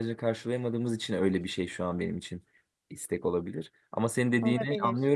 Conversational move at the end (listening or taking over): listening